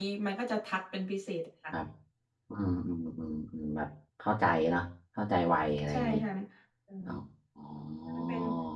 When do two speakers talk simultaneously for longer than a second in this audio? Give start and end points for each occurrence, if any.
none

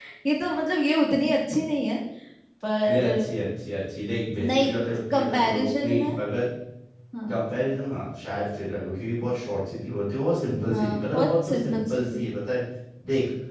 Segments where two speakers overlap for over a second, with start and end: 4.5-6.2, 10.7-12.2

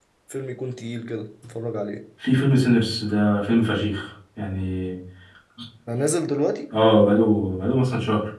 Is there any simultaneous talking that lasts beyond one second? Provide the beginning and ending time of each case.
none

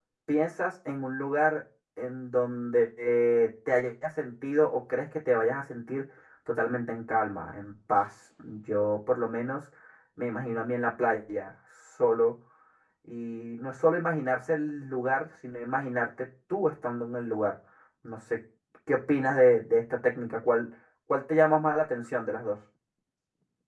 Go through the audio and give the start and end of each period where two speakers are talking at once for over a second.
none

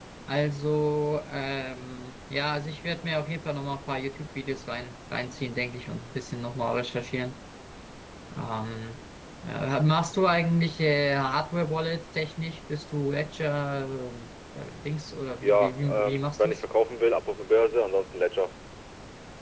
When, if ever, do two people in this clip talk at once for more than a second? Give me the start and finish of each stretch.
15.4-16.6

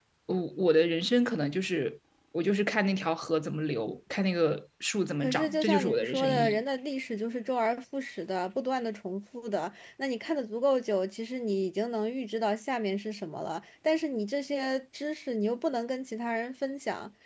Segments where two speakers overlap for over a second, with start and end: 5.2-6.6

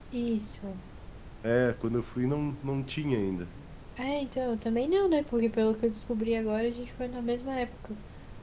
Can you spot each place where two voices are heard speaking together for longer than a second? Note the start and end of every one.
none

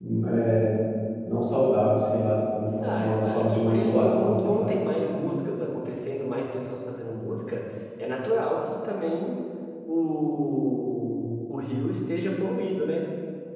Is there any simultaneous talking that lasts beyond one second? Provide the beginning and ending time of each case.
2.9-4.7

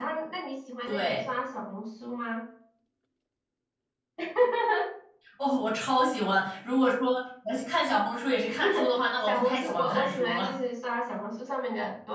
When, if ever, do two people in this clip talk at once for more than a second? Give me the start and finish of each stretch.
9.3-10.5

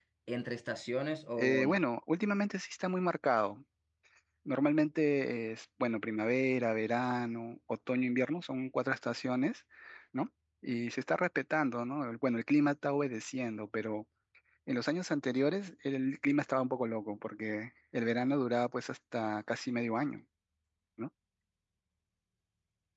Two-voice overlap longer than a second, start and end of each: none

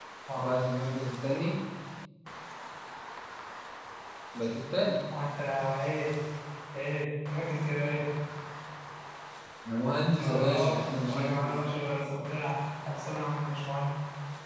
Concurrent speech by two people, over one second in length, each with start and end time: 10.2-11.6

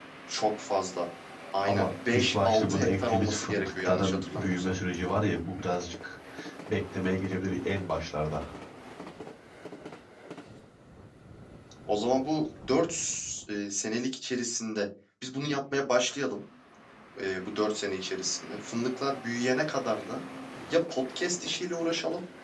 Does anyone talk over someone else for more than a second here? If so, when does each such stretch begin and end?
1.7-4.7

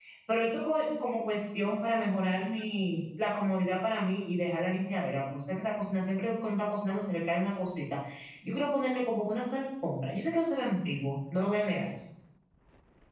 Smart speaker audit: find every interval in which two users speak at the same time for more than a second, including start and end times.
none

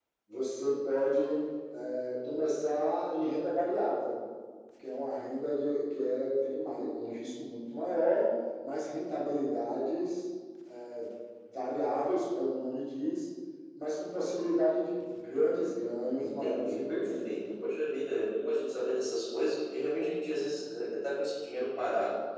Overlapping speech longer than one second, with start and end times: 16.2-17.5

